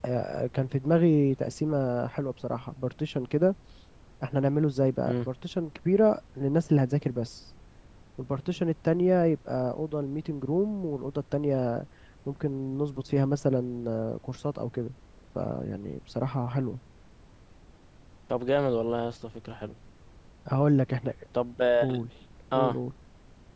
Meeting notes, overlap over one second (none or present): none